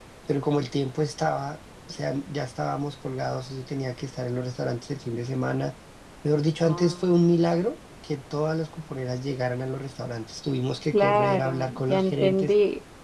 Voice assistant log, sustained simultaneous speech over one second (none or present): present